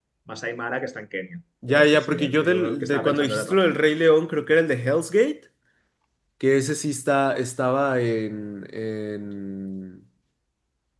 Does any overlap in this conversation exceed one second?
Yes, from 1.6 s

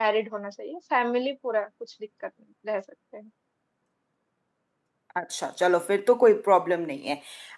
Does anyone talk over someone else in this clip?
No

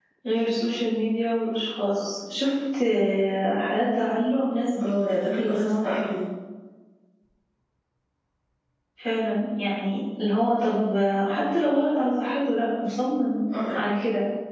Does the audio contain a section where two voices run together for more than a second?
Yes, from 4.8 s

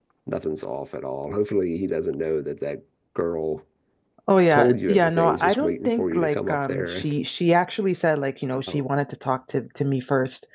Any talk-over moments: Yes, from 4.5 s

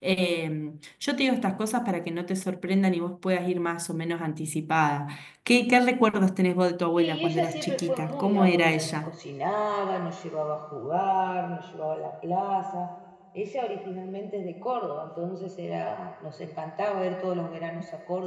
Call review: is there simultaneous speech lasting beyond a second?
Yes, from 7.0 s

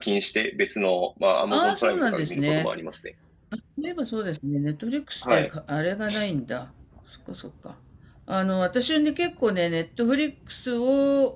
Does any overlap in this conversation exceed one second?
Yes, from 1.5 s

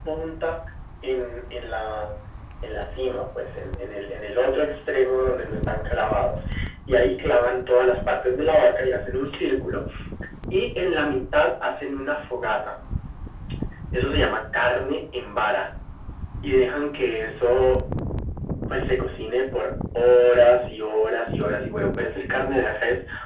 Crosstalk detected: No

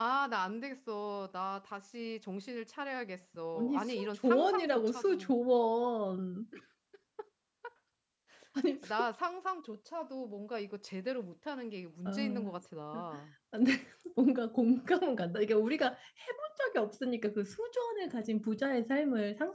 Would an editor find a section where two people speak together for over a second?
Yes, from 3.6 s

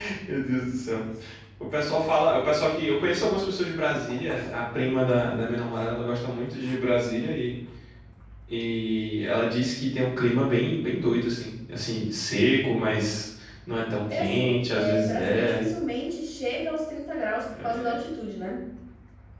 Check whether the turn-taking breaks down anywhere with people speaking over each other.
Yes, from 14.1 s

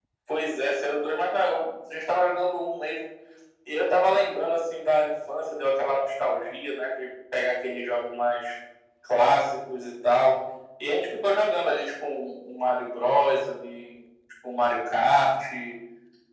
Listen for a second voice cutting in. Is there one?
No

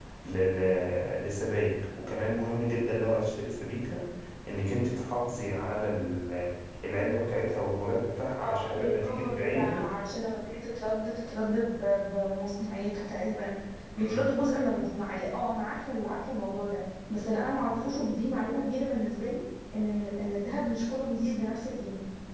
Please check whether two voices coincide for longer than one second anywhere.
Yes, from 8.4 s

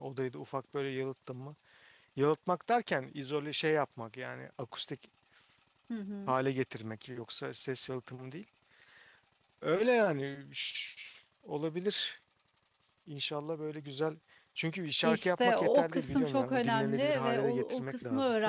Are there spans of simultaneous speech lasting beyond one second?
Yes, from 15.0 s

